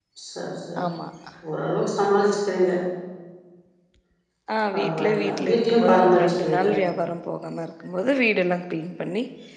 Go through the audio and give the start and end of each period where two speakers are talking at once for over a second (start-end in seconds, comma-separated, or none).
4.7-6.7